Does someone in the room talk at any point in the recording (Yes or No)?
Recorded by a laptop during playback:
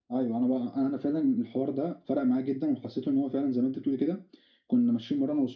No